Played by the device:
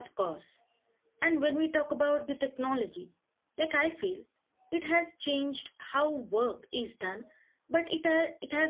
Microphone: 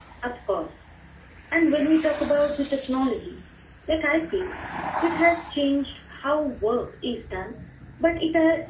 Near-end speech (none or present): none